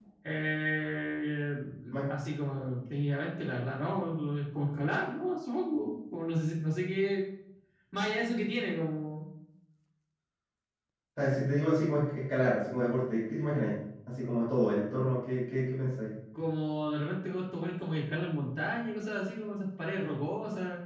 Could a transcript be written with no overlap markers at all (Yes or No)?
Yes